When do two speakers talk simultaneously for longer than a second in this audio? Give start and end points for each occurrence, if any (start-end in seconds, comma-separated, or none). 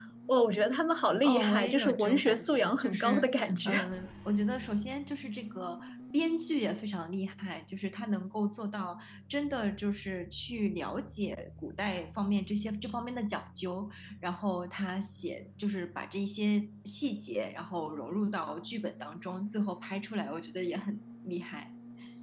1.2-3.8